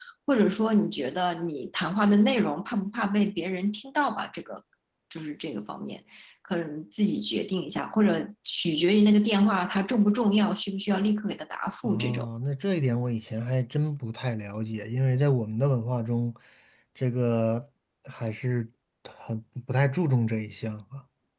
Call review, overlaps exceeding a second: none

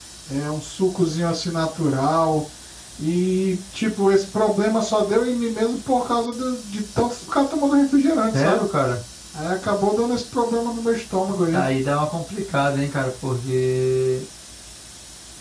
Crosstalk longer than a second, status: none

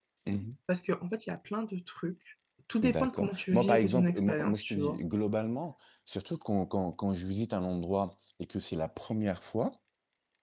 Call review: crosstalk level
present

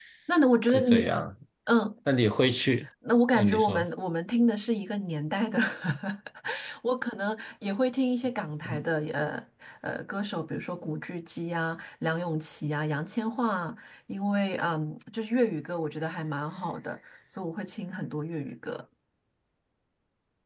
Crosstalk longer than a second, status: none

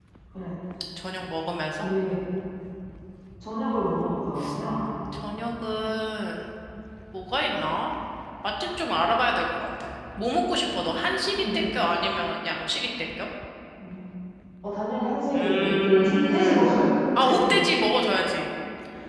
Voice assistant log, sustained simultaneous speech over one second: present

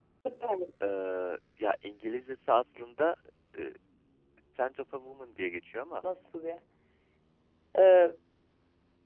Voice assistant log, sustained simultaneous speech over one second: none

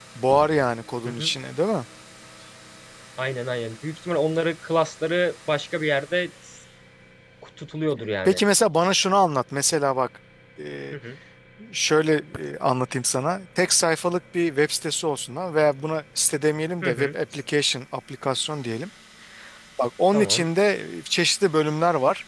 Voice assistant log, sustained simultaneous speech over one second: none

